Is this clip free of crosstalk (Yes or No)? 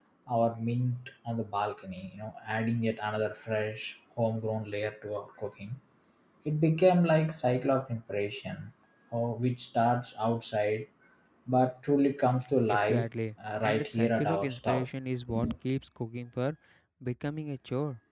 No